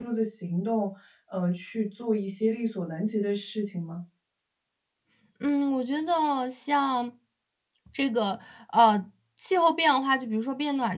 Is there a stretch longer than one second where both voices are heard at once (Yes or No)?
No